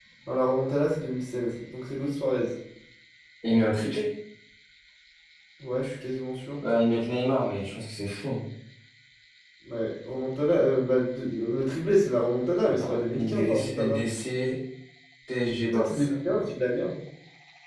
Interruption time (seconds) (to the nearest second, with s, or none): 13 s